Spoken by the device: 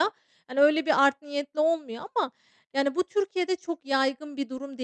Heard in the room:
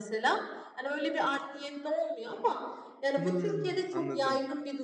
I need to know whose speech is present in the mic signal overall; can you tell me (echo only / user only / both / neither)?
both